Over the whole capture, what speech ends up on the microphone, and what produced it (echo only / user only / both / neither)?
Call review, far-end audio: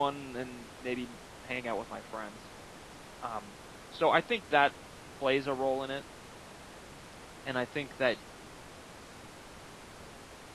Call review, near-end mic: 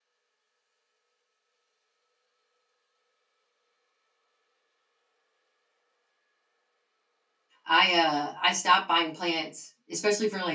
user only